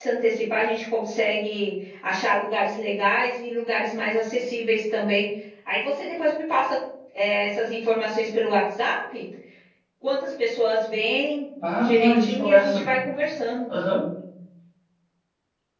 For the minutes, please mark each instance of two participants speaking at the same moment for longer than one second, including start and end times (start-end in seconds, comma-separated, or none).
11.6-12.9